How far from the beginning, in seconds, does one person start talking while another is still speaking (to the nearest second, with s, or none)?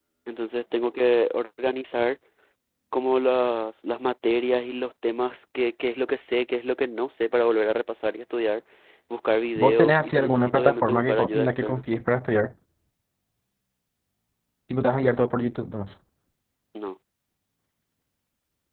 10 s